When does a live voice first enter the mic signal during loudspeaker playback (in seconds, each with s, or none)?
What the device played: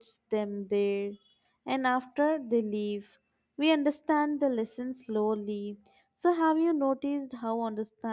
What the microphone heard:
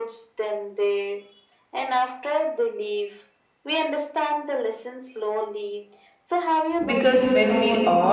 6.8 s